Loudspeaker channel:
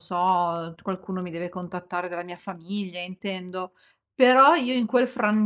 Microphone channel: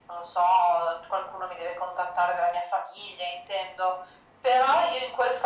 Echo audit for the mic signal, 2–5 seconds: echo only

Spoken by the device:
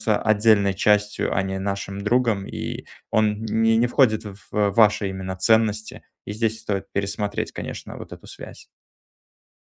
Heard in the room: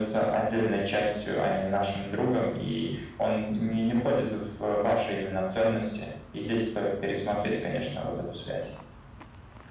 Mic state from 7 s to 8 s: echo only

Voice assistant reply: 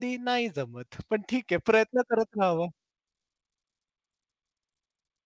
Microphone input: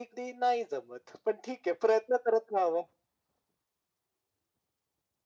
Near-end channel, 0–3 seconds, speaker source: echo only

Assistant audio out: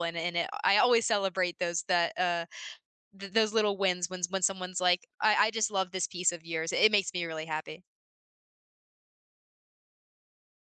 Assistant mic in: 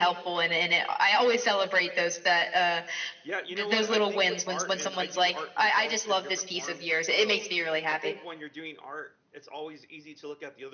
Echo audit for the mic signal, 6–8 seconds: both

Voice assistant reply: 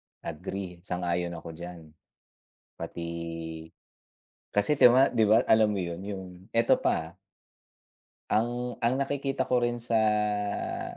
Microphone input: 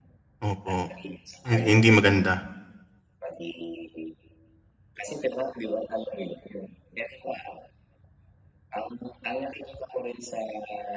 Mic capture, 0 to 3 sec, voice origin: both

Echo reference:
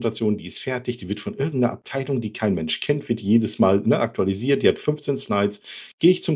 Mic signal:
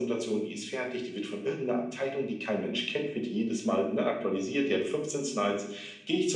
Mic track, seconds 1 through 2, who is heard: echo only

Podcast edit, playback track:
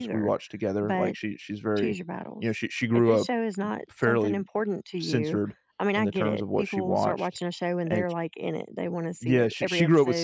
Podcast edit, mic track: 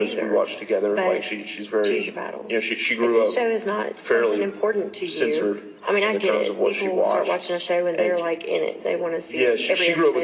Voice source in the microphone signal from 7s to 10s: echo only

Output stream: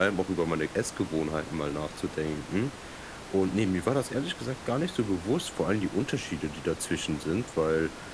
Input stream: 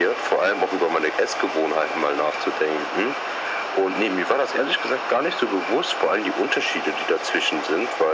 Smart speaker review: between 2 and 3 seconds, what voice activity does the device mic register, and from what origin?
echo only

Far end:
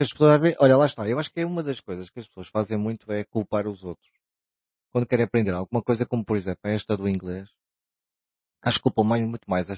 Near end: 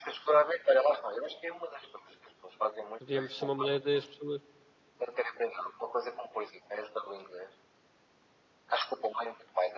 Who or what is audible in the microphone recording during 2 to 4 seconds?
both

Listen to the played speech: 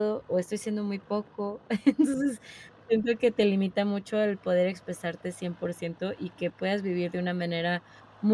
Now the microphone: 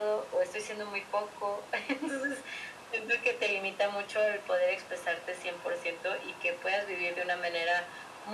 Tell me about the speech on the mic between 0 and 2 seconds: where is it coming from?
echo only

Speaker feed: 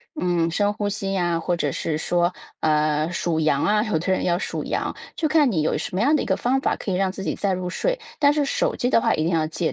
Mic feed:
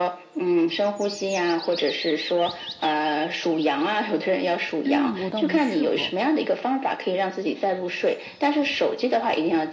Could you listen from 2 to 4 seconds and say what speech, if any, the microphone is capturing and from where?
echo only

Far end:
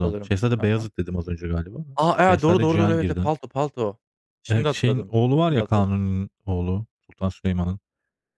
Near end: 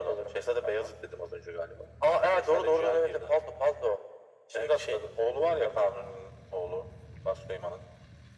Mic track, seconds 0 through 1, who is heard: echo only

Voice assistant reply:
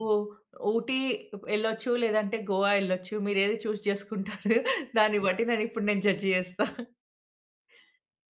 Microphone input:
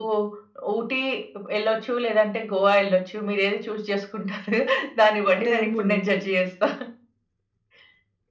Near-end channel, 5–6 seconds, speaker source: both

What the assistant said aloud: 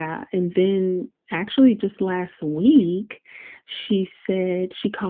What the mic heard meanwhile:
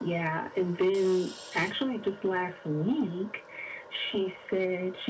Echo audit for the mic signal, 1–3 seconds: echo only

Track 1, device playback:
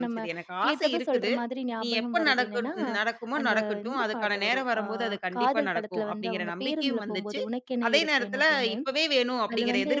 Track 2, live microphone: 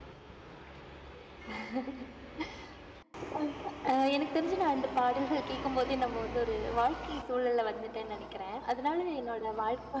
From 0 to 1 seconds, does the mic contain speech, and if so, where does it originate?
neither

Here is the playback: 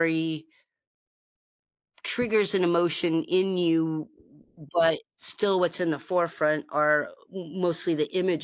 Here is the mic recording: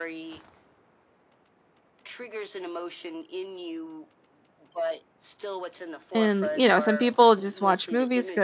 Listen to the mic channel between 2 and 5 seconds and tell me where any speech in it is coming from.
echo only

